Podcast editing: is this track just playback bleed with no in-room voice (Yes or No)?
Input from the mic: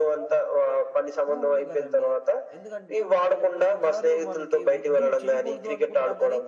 No